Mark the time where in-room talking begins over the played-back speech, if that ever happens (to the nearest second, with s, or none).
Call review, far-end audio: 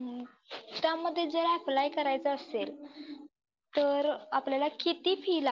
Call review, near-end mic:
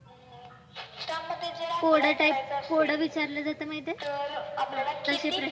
2 s